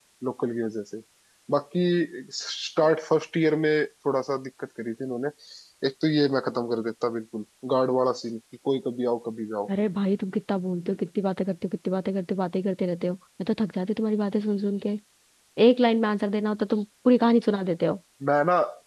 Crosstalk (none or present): none